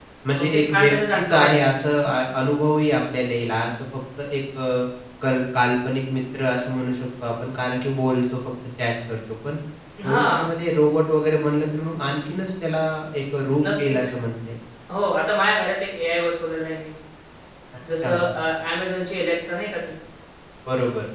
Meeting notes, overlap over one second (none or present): present